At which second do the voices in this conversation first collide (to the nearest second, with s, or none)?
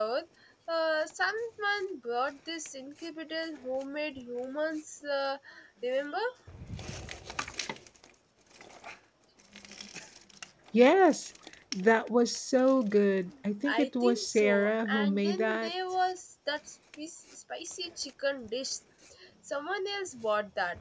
14 s